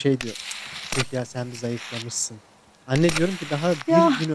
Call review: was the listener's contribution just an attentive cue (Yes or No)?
Yes